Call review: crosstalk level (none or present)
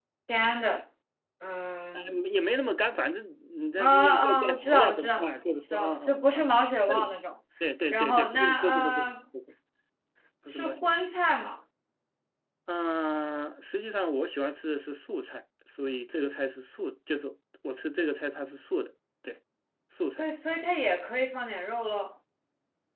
present